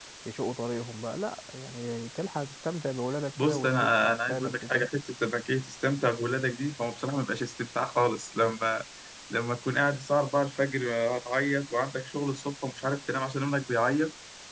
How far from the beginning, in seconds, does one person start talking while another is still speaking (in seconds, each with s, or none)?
3.4 s